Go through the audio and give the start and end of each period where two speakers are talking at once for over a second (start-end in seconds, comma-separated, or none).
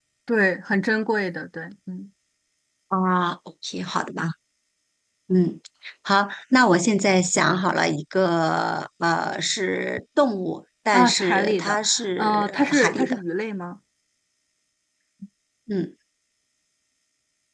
10.9-13.2